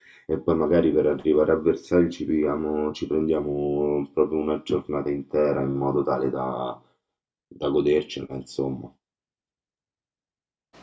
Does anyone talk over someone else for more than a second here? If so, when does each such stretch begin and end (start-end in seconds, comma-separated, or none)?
none